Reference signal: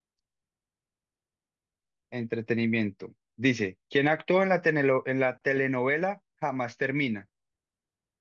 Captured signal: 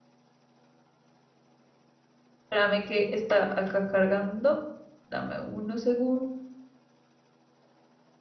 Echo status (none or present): none